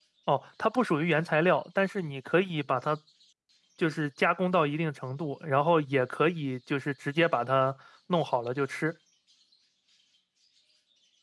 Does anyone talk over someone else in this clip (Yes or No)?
No